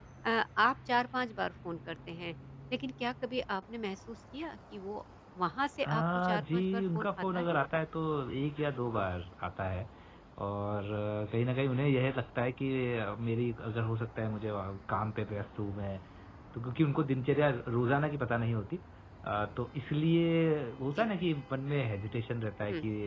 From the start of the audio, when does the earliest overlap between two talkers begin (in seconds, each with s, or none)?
5.8 s